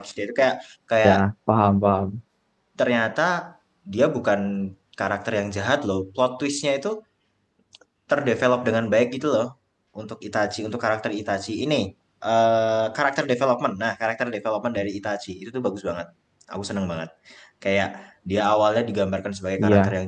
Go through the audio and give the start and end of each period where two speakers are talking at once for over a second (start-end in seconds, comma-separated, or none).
none